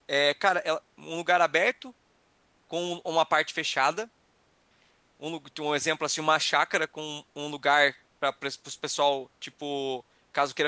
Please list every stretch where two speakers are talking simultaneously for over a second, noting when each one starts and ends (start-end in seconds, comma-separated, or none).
none